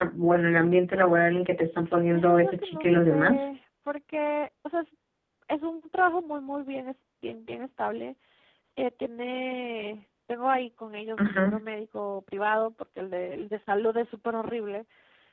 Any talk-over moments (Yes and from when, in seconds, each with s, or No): Yes, from 2.1 s